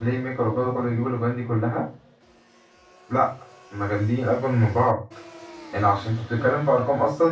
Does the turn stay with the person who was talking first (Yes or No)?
Yes